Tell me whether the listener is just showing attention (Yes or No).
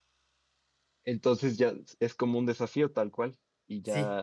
No